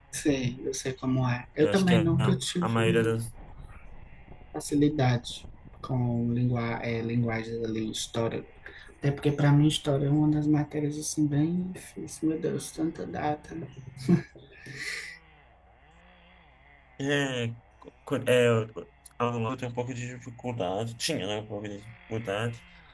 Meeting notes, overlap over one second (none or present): present